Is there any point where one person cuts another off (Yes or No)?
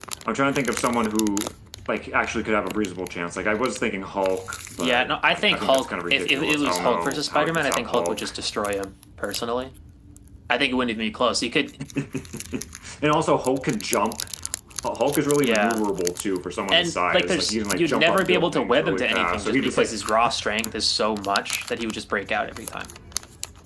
Yes